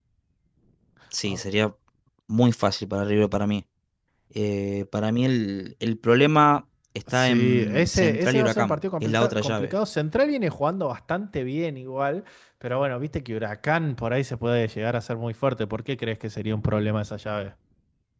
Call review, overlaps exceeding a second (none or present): present